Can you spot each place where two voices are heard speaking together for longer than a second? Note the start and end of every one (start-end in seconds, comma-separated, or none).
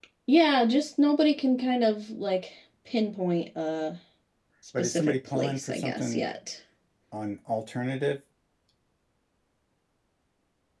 4.8-6.2